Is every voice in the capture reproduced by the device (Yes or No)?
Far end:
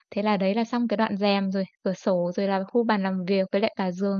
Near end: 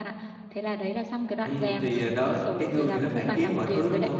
No